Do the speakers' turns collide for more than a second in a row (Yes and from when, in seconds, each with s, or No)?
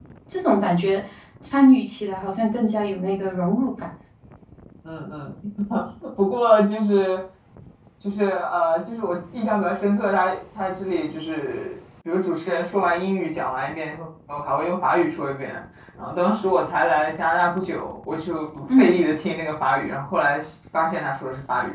No